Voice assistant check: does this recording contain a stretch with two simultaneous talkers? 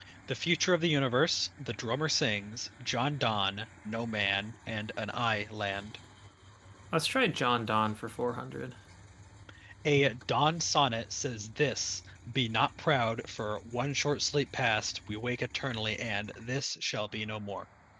No

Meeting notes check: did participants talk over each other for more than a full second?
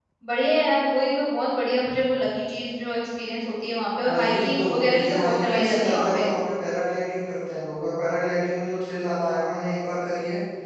Yes, from 4.1 s

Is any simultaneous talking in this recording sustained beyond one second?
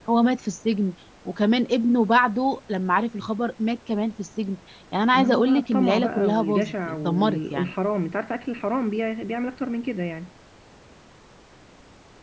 Yes, from 5.1 s

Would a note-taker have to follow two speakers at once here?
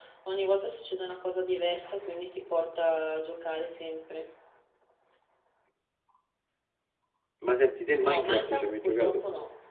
Yes, from 8.0 s

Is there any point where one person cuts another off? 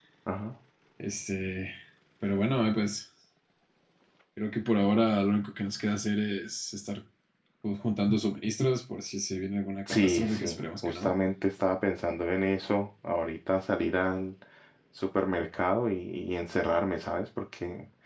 Yes, from 9.9 s

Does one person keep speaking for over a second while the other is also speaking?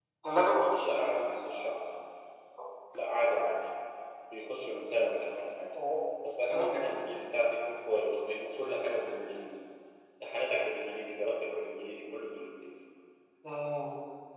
No

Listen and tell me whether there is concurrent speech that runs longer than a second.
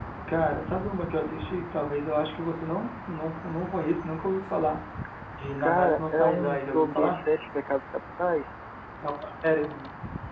Yes, from 5.6 s

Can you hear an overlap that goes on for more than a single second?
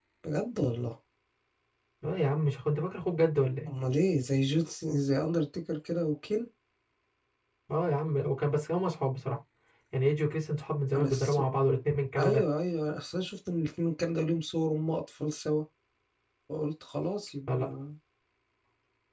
No

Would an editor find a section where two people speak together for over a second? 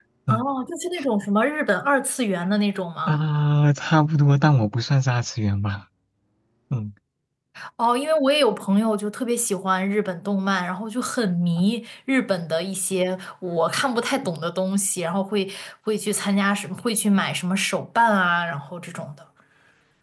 No

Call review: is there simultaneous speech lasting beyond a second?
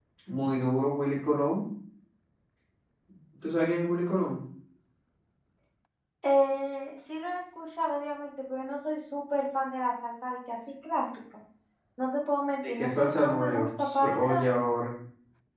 Yes, from 12.7 s

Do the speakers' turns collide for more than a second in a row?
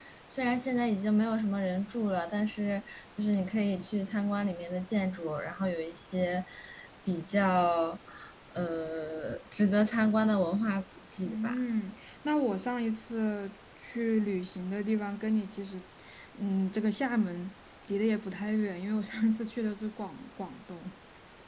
No

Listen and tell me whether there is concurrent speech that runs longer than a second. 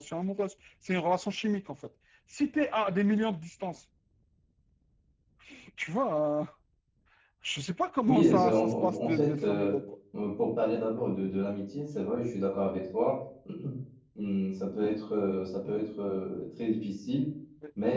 Yes, from 8.1 s

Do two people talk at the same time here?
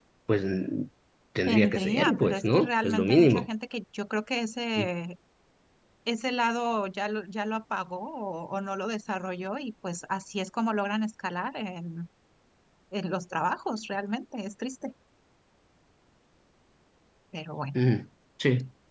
Yes, from 1.5 s

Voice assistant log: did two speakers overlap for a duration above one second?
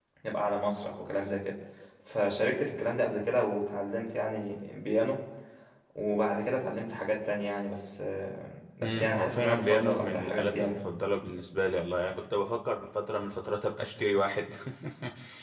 Yes, from 8.8 s

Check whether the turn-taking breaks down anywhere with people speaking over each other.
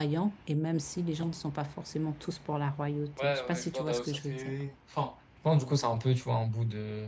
Yes, from 3.2 s

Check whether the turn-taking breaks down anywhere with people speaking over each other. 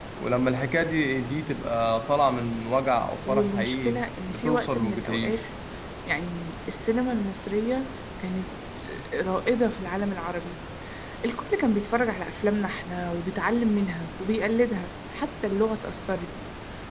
Yes, from 3.2 s

